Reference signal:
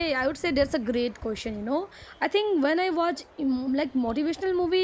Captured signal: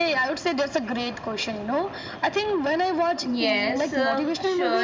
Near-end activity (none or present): present